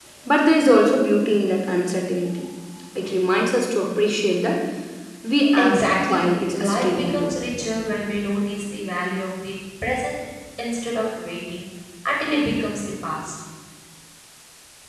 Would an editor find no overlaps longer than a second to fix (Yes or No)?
No